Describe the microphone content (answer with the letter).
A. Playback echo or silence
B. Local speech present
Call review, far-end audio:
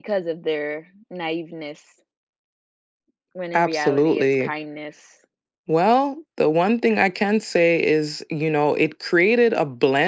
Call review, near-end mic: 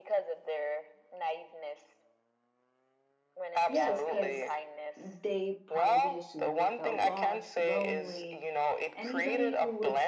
B